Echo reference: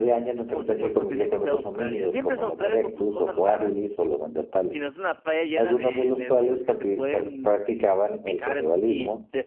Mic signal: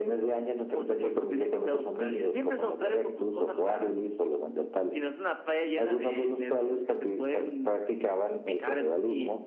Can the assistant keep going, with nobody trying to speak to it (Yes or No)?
Yes